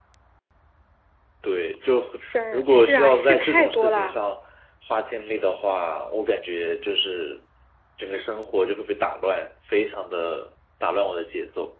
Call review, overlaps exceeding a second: present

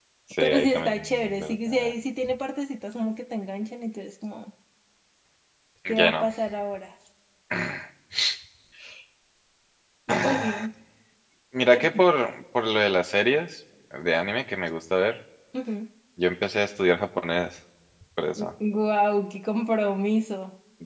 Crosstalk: present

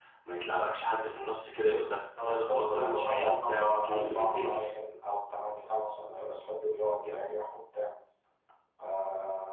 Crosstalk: present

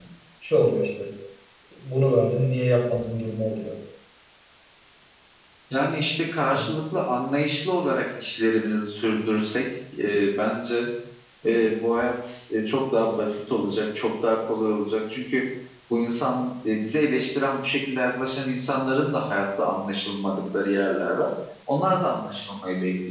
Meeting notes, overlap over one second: none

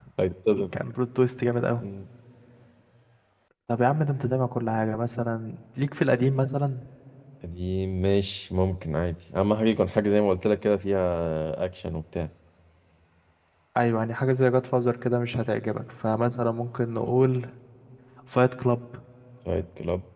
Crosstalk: none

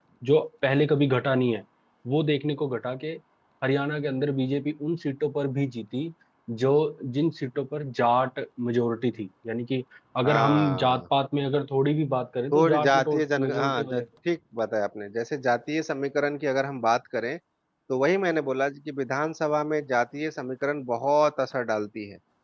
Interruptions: present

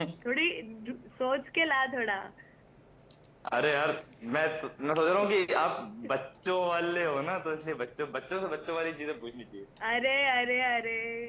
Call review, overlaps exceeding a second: none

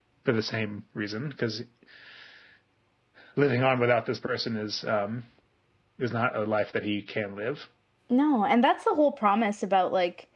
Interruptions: none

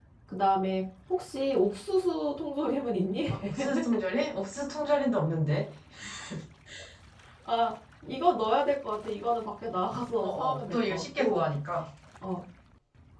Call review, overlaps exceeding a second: present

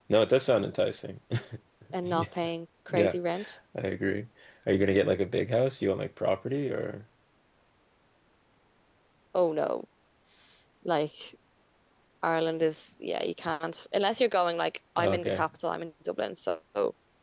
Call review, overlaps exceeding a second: none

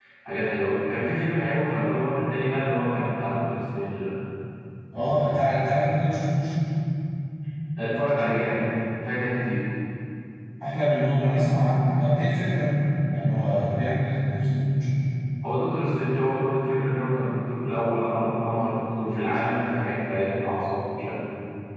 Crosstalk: none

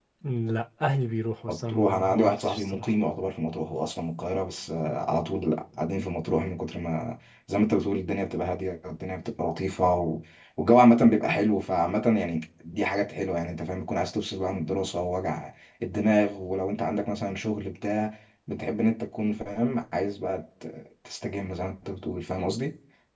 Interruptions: present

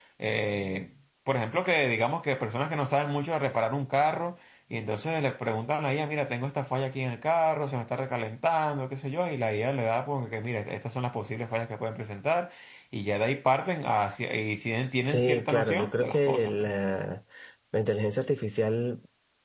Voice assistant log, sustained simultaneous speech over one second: present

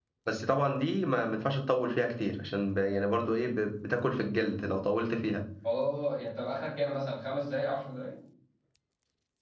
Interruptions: none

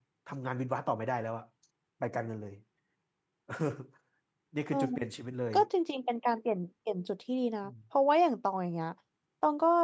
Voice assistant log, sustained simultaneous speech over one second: none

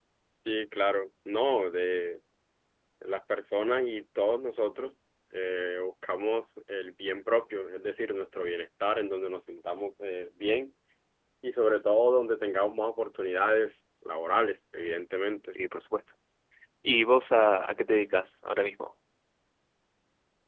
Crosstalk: none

